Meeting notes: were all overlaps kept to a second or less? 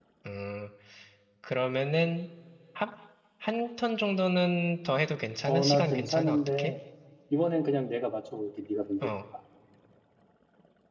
No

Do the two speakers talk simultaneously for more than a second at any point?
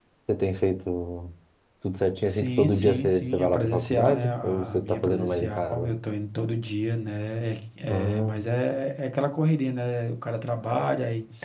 Yes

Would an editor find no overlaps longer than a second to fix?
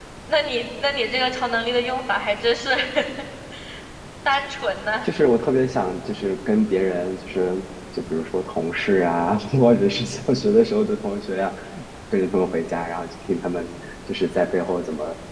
Yes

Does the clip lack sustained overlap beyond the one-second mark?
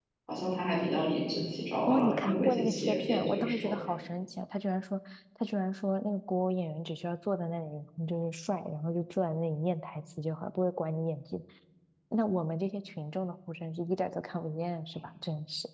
No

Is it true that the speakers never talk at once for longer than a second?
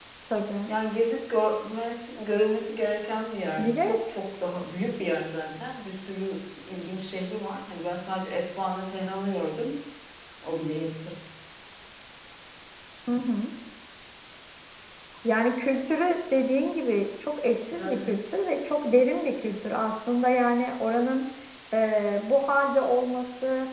Yes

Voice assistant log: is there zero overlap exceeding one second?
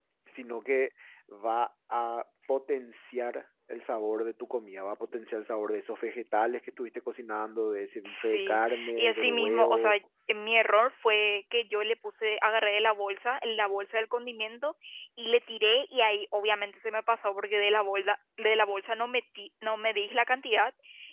No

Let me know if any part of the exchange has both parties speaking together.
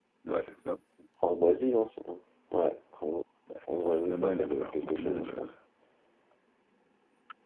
Yes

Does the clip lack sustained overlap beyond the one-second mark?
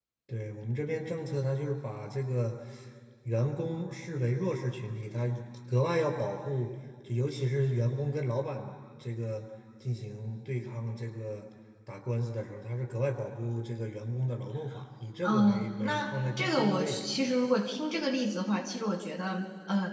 No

